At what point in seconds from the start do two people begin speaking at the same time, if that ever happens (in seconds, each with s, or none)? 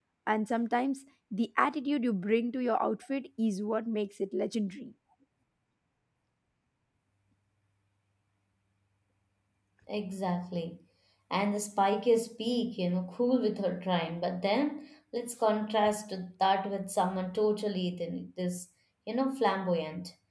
none